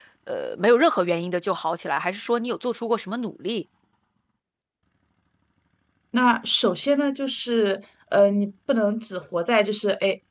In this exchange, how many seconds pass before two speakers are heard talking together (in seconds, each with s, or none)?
none